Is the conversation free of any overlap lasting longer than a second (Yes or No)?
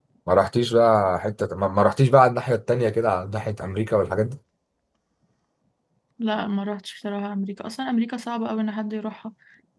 Yes